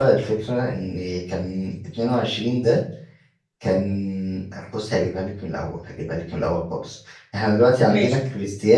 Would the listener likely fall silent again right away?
Yes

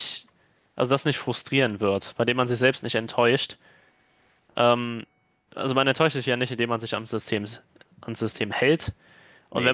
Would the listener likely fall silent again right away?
Yes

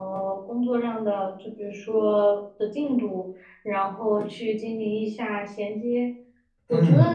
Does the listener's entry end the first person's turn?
No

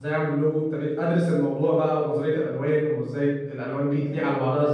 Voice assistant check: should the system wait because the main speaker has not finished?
Yes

